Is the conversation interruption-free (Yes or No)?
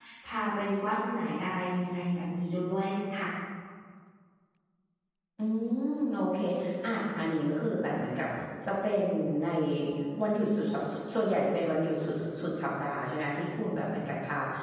Yes